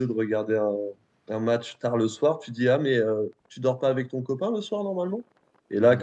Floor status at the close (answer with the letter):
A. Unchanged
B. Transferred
A